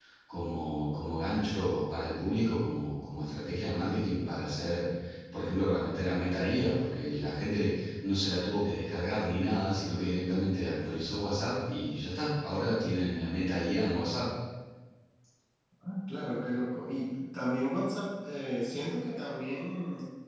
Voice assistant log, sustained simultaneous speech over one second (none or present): none